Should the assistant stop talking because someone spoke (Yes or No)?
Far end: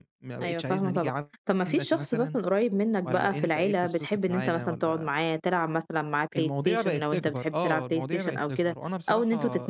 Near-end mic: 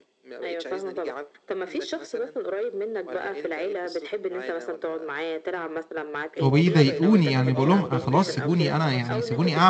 Yes